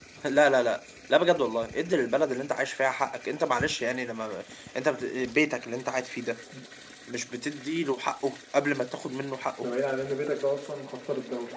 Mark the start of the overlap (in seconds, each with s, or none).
none